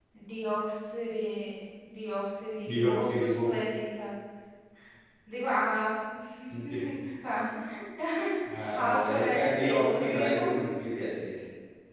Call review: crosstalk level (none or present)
present